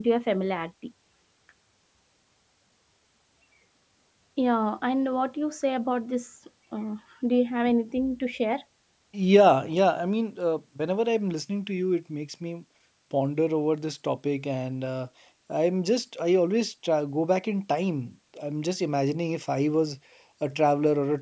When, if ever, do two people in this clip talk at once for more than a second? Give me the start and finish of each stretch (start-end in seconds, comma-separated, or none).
none